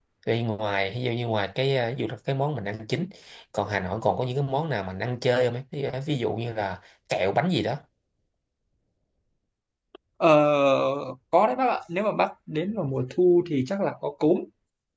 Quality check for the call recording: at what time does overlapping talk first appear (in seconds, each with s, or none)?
none